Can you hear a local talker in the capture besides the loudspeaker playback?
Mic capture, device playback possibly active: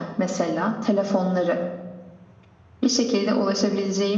No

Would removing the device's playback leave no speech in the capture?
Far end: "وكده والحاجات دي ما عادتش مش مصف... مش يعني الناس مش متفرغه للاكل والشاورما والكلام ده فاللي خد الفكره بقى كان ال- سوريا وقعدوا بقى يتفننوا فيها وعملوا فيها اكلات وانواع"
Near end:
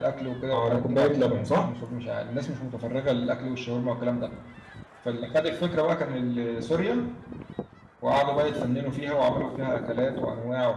No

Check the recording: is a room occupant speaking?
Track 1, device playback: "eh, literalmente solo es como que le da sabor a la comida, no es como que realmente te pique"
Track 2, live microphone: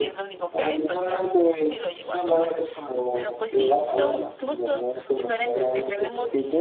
Yes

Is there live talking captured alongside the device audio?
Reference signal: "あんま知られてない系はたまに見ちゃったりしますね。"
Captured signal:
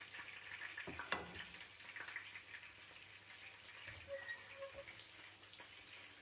No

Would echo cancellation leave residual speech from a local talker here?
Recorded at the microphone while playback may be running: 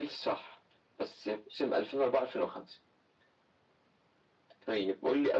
No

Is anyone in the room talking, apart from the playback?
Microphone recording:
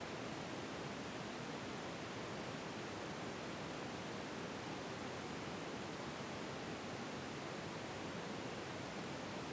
No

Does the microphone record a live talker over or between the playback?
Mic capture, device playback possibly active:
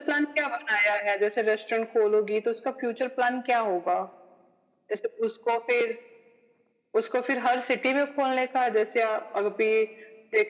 No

